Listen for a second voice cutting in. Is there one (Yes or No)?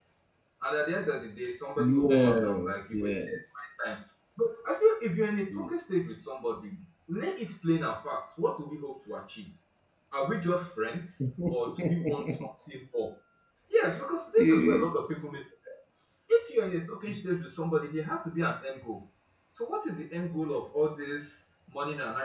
Yes